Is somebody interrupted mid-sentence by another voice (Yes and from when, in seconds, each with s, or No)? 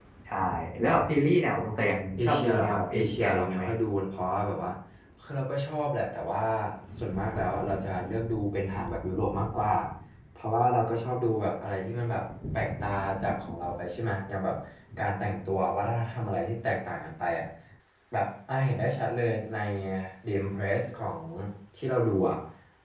Yes, from 2.2 s